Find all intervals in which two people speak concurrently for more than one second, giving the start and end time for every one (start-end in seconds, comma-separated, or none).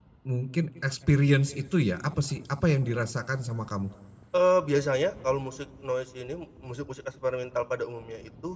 none